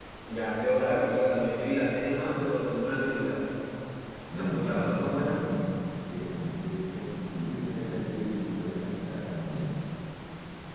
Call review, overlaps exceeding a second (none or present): present